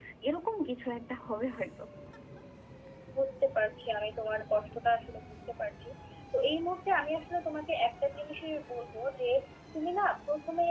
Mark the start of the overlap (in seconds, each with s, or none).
none